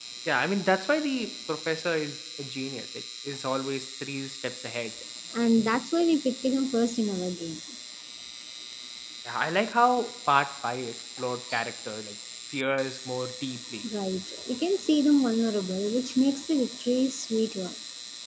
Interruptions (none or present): none